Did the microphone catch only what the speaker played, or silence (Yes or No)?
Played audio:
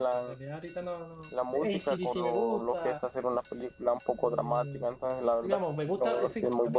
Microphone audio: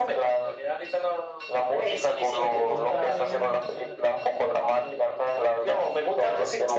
No